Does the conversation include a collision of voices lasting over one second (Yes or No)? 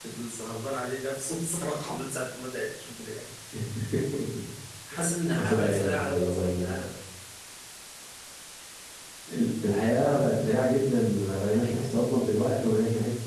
Yes